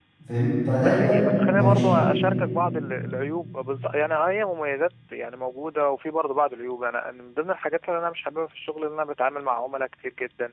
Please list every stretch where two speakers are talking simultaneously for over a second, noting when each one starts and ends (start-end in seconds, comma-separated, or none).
0.8-2.2